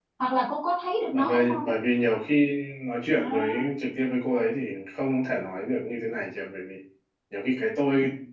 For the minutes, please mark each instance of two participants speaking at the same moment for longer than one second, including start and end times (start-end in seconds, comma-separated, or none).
none